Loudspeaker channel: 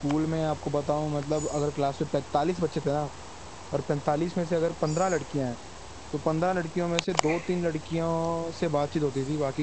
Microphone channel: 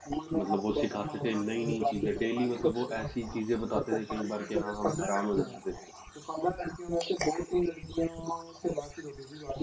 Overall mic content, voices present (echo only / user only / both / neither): both